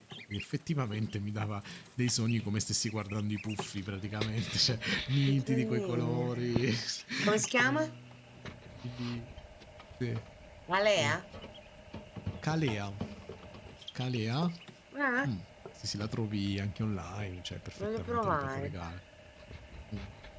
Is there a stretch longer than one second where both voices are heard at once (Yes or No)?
Yes